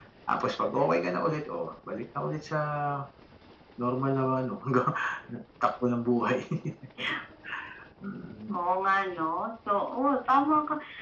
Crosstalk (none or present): none